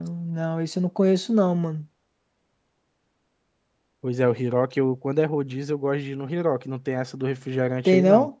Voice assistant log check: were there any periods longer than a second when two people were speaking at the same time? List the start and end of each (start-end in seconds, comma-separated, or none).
none